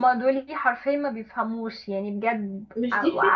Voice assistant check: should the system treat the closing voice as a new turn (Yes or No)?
Yes